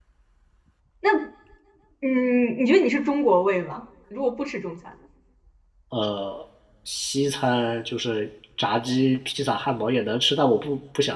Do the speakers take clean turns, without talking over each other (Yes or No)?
Yes